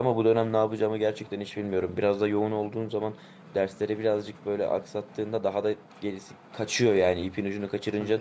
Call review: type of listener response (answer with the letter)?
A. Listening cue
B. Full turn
B